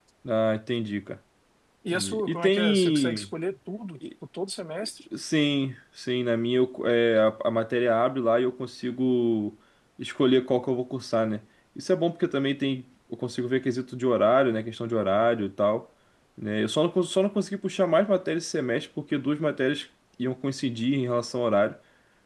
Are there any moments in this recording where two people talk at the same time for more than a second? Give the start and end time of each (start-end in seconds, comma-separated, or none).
1.9-3.3